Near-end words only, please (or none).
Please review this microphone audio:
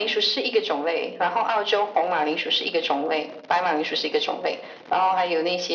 none